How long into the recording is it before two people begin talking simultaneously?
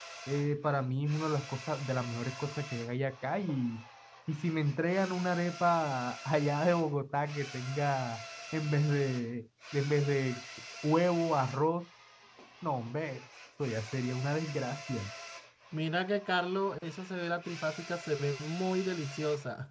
none

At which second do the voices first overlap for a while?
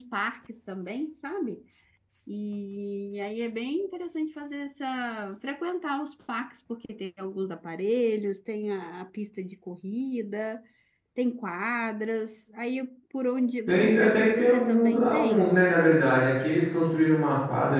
13.7 s

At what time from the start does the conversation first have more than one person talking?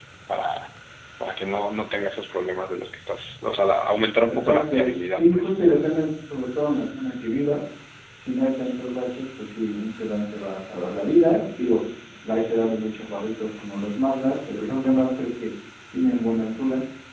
4.3 s

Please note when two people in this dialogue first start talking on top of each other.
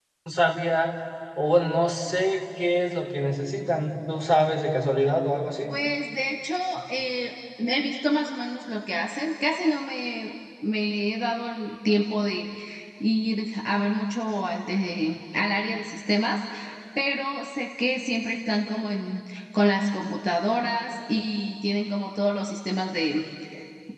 none

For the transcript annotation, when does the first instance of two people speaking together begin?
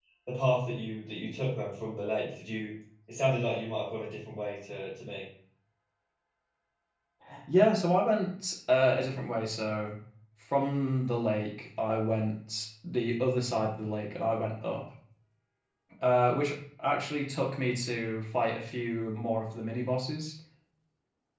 none

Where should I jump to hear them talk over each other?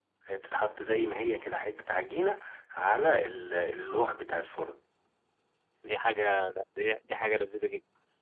none

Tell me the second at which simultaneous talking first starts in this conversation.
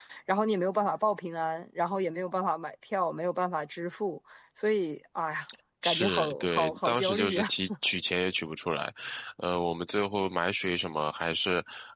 5.8 s

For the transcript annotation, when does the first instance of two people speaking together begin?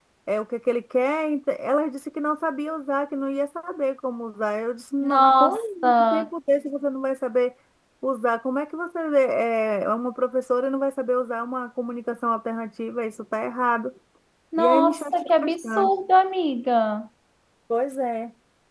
5.0 s

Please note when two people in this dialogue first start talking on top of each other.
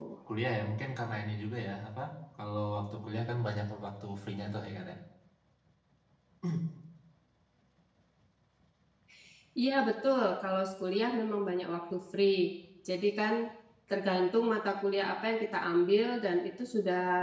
none

